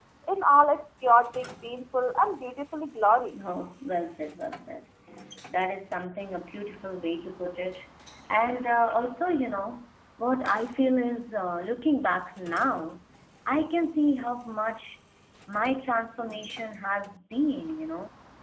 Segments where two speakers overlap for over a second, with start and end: none

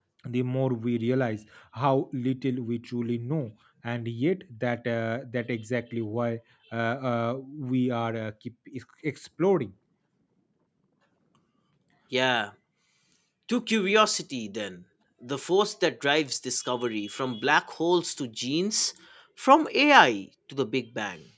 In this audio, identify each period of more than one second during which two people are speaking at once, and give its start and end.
none

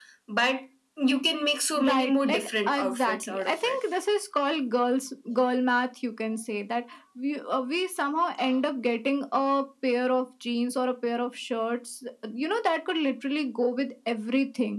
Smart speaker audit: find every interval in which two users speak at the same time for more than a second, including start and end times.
1.9-3.8

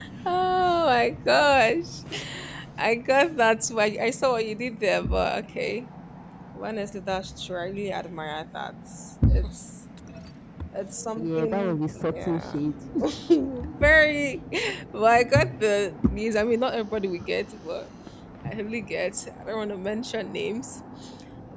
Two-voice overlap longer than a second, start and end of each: 11.2-12.5

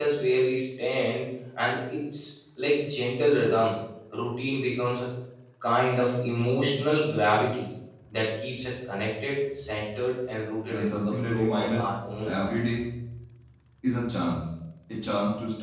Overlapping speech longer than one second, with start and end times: 10.7-12.6

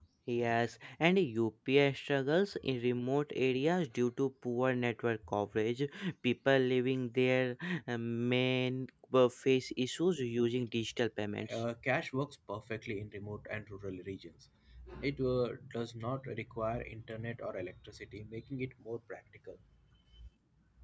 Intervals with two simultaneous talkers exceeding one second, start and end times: none

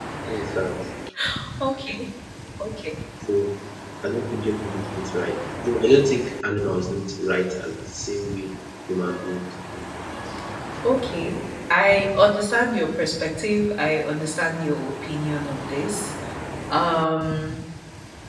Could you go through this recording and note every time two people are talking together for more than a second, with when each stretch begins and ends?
none

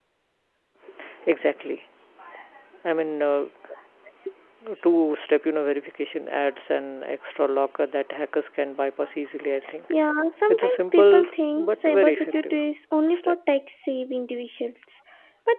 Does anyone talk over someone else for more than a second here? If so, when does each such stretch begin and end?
10.5-12.6

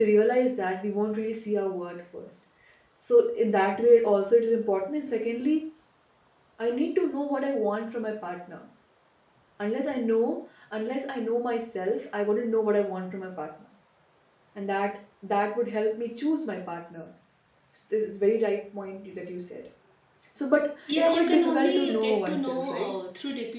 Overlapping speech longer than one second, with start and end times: 20.9-22.9

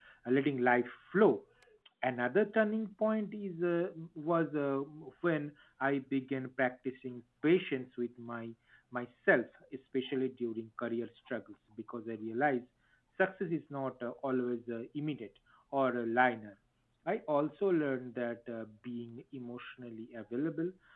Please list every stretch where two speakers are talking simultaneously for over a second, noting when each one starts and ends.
none

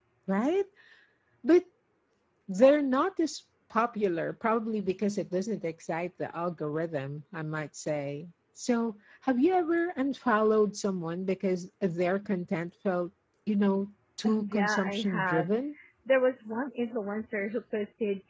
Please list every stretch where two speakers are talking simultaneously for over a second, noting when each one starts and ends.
14.2-15.5

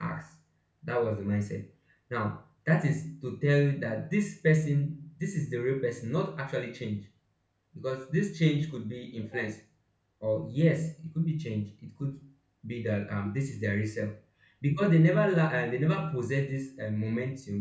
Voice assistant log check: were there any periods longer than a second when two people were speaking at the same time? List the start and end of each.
none

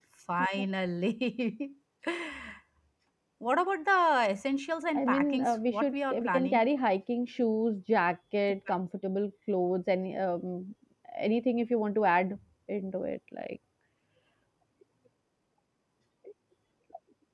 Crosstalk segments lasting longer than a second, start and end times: 5.0-6.6

